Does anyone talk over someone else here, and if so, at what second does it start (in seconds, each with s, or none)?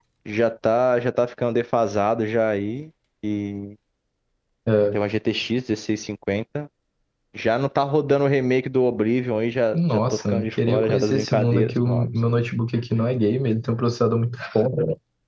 9.7 s